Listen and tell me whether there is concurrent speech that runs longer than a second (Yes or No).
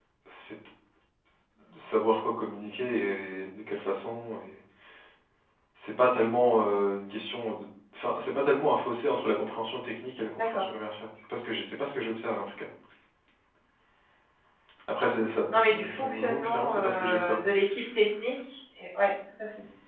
Yes